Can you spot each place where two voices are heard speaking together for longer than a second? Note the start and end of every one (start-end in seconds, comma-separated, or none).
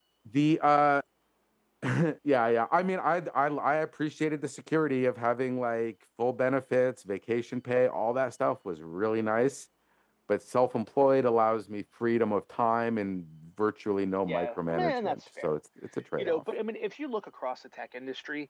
14.3-15.6